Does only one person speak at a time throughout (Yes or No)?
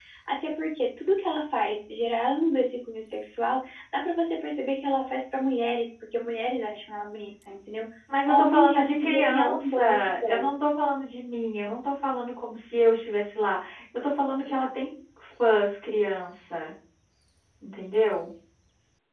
No